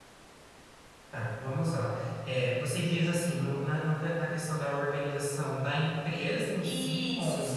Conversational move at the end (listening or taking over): taking over